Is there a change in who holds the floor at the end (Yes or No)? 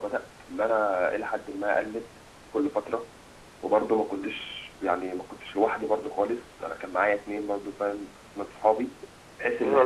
Yes